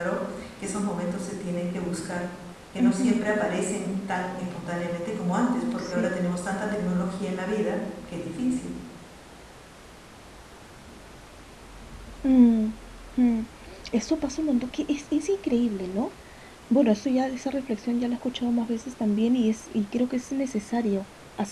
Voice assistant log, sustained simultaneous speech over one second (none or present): none